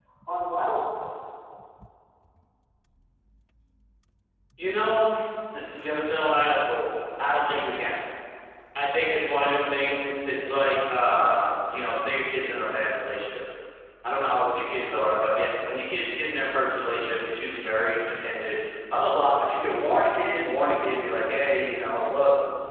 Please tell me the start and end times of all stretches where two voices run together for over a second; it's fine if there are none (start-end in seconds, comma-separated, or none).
none